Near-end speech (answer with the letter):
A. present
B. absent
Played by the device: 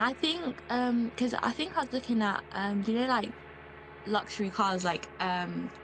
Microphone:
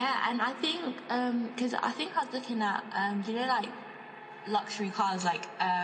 B